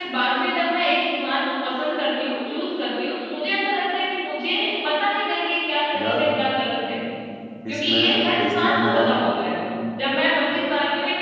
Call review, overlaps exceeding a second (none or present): present